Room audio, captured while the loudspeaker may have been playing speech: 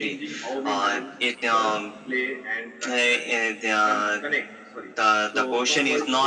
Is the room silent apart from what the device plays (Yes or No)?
Yes